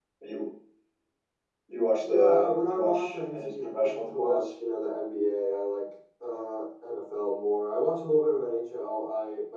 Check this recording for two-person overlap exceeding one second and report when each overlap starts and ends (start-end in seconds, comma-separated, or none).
2.0-4.4